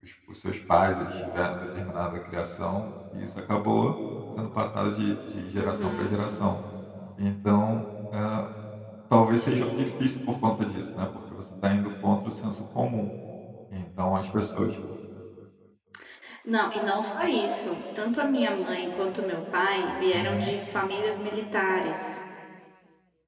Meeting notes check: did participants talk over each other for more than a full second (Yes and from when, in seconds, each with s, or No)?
No